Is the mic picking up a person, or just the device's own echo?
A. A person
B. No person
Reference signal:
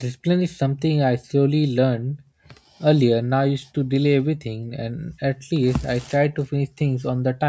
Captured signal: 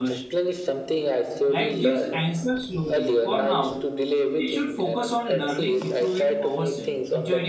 A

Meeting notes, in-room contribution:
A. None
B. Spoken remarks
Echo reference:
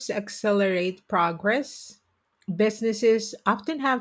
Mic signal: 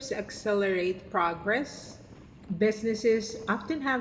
A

